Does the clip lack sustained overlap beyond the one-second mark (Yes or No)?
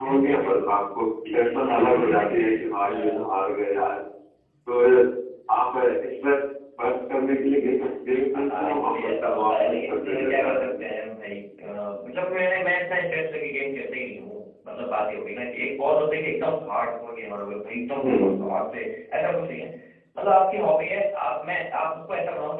No